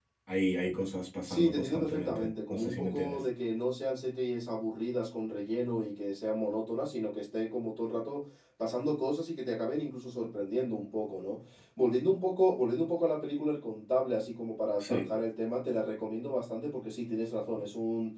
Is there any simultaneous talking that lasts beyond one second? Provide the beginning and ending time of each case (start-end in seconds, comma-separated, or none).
1.3-3.2